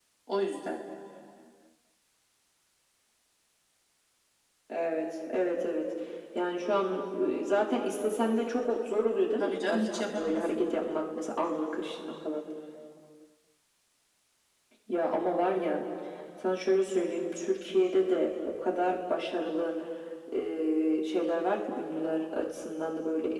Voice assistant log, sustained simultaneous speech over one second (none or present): present